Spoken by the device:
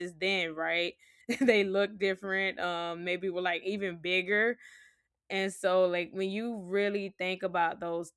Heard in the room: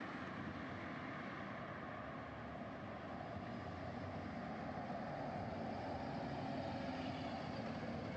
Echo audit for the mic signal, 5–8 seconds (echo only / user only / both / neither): neither